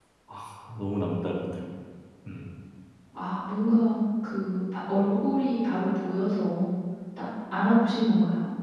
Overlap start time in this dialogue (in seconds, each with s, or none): none